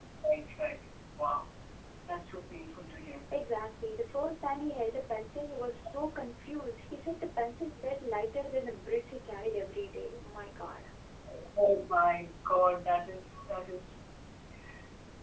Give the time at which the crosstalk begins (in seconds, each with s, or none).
none